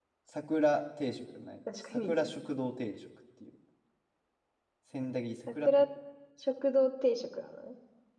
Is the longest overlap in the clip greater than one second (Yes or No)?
No